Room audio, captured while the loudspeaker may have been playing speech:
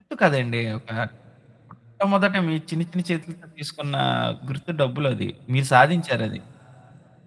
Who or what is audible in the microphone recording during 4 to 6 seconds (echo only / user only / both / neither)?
user only